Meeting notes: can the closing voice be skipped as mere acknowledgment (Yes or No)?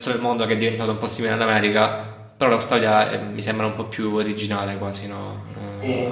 No